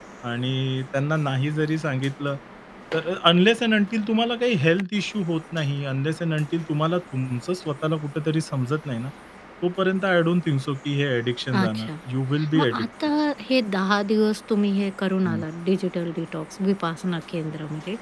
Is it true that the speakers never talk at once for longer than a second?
Yes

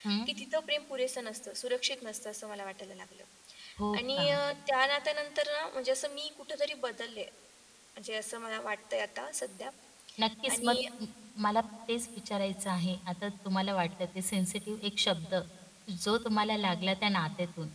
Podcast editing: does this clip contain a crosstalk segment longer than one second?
No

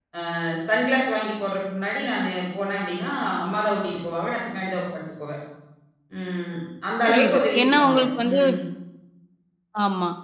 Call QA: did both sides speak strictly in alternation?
No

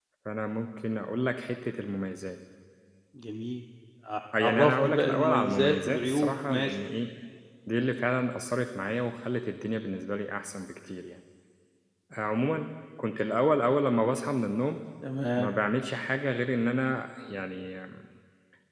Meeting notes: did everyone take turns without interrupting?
No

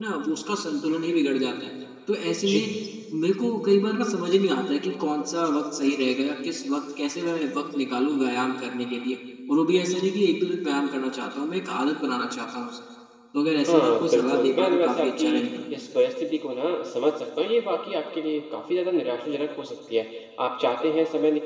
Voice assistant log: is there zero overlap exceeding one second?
No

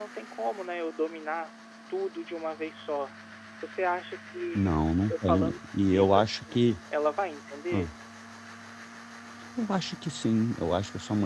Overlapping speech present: Yes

